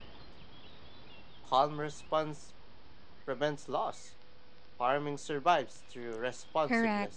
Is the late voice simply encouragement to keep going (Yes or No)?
No